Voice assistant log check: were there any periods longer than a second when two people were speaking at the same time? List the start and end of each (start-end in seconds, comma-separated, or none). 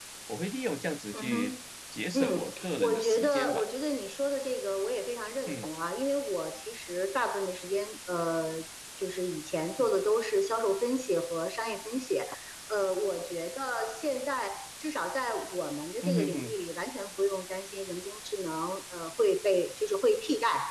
2.1-3.6